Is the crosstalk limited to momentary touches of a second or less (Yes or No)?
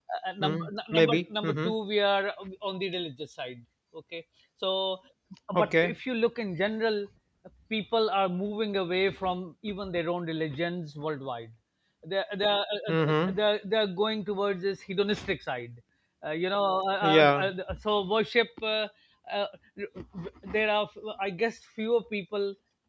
No